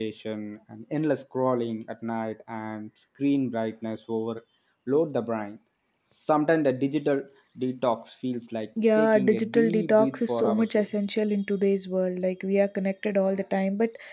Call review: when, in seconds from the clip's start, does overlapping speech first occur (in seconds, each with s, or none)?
8.8 s